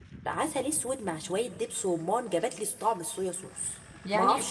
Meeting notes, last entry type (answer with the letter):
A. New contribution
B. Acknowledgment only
A